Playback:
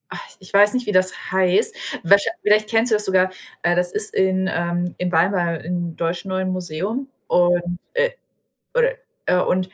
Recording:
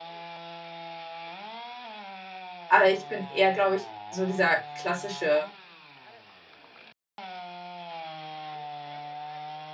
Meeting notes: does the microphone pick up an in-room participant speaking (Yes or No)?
Yes